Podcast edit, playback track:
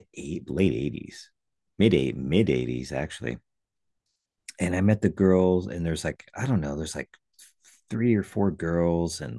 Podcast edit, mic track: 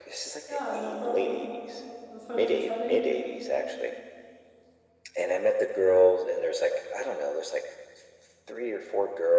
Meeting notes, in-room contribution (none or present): present